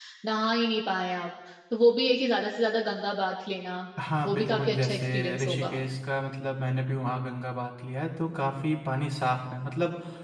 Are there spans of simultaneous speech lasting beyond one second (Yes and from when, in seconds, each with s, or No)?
Yes, from 4.2 s